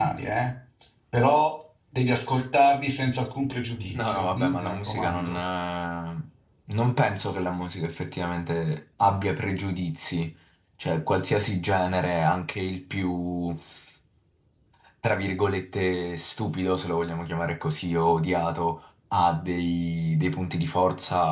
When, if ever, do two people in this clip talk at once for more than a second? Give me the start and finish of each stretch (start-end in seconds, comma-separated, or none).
3.9-5.4